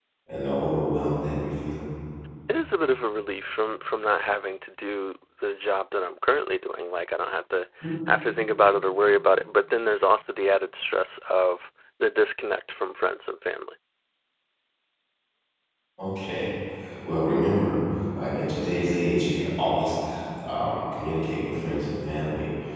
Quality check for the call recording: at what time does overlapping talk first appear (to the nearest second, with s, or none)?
none